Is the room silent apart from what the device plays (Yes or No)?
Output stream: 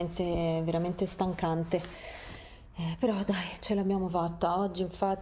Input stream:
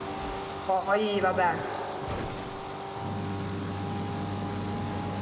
No